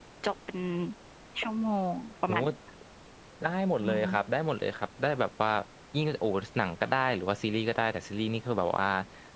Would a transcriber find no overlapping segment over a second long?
Yes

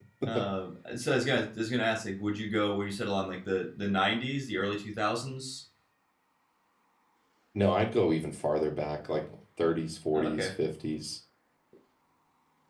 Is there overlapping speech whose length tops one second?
No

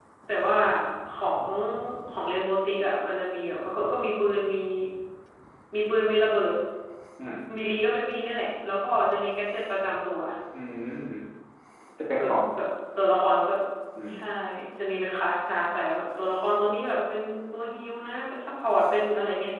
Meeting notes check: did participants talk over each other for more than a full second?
No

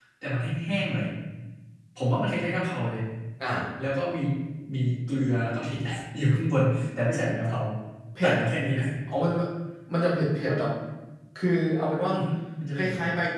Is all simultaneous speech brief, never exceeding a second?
Yes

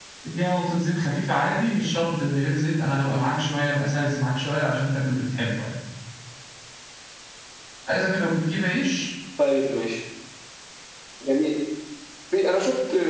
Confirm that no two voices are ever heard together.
Yes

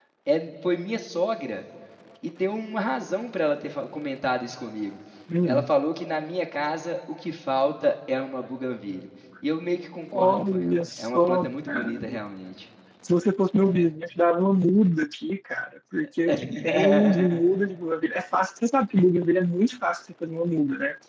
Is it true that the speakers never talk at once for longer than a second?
No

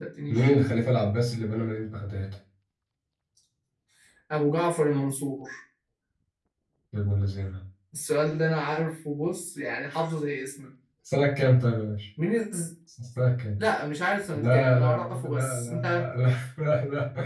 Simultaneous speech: Yes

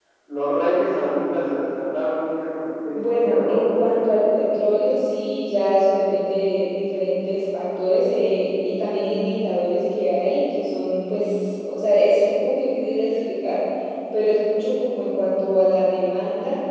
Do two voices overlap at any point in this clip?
Yes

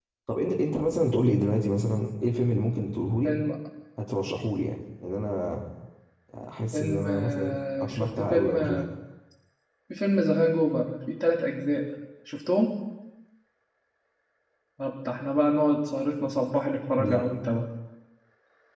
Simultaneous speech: Yes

